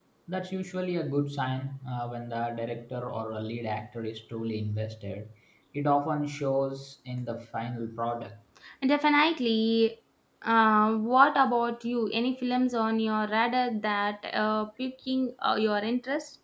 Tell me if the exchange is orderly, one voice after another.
Yes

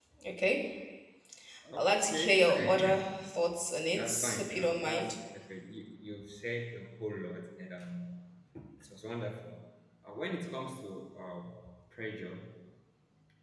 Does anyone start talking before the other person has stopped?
Yes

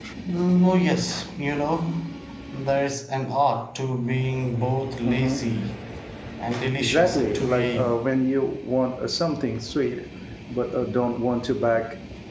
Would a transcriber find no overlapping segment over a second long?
No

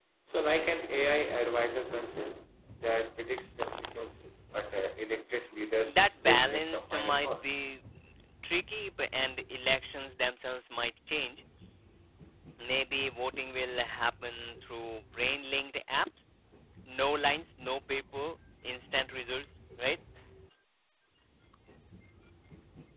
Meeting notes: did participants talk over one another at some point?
Yes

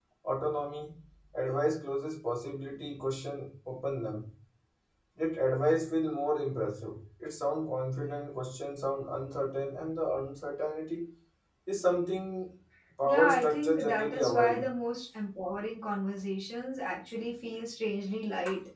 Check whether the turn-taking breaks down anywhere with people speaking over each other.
Yes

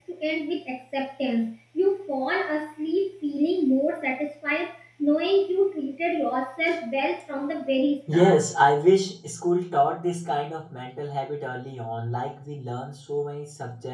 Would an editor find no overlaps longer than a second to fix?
Yes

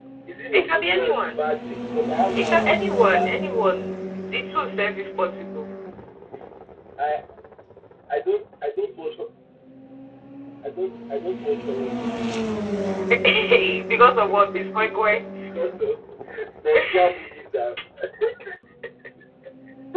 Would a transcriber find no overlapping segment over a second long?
No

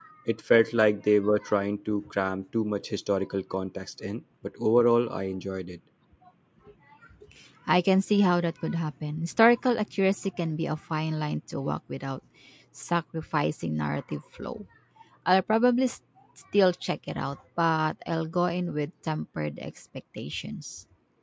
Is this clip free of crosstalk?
Yes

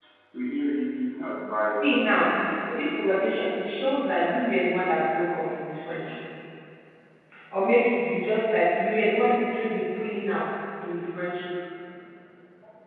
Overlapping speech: Yes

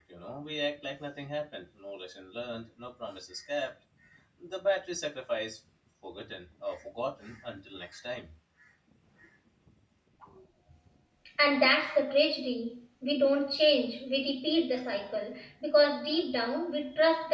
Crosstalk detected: No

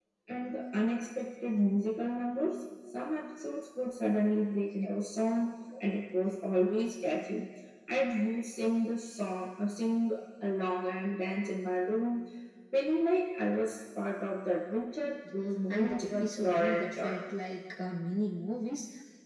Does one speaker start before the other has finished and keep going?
Yes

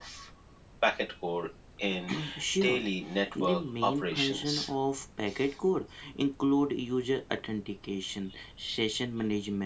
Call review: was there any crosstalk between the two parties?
Yes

